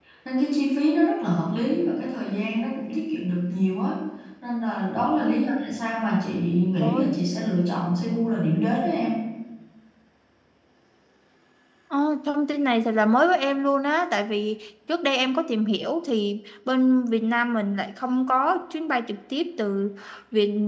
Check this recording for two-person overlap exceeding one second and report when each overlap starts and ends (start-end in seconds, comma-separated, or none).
none